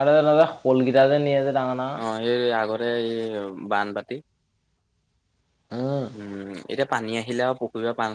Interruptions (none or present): none